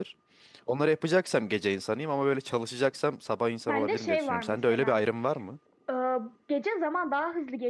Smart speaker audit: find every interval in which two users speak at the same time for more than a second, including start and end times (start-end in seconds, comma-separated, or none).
3.7-5.0